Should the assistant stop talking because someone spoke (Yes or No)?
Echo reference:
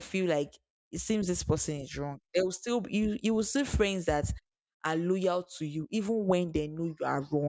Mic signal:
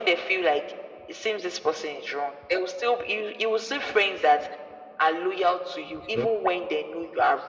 Yes